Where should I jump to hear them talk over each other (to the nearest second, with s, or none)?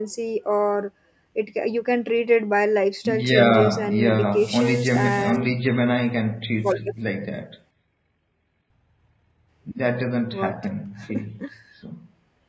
3 s